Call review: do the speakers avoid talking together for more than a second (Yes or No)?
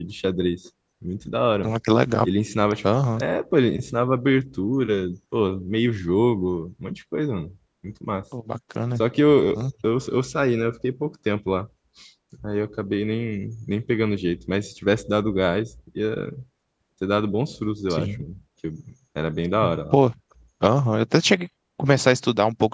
Yes